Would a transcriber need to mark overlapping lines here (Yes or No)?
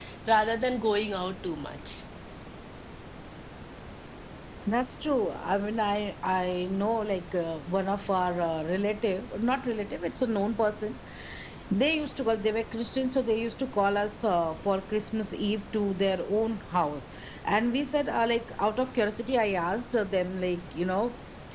No